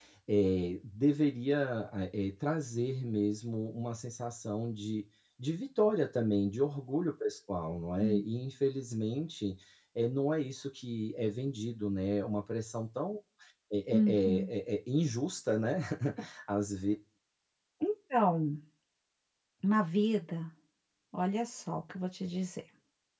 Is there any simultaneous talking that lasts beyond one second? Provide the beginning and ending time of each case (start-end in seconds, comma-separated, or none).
none